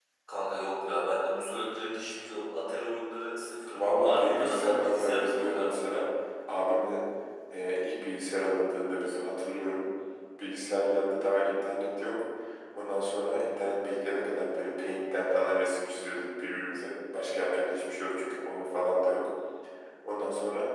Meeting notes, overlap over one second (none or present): present